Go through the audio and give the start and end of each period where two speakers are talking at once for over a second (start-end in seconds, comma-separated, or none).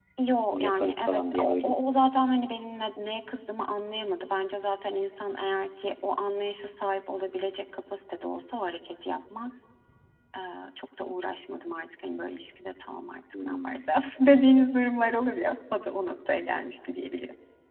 0.5-1.7